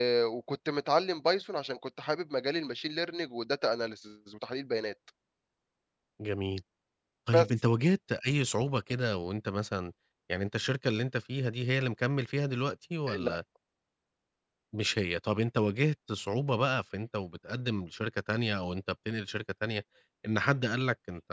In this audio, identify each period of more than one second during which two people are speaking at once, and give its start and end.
none

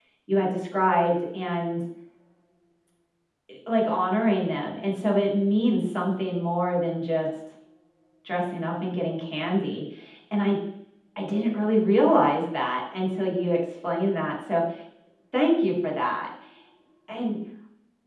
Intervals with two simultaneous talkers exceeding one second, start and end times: none

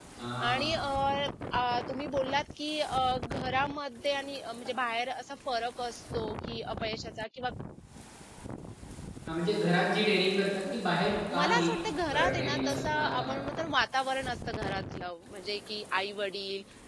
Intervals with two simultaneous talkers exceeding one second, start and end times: 12.1-13.4

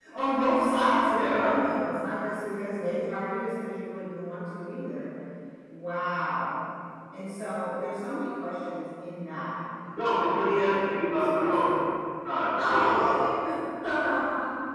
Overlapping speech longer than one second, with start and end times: 10.1-11.7

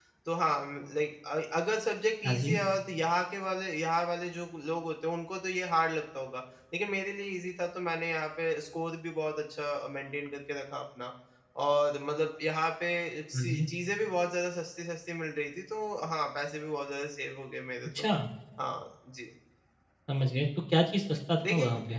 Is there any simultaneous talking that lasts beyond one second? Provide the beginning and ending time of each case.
none

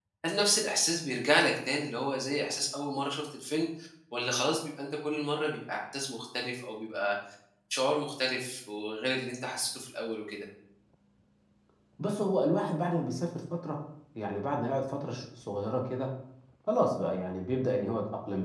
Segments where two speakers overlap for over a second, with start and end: none

